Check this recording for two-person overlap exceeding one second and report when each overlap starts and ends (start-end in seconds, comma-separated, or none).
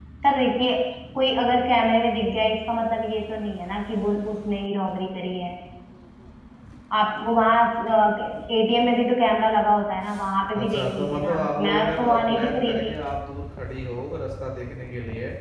10.6-12.9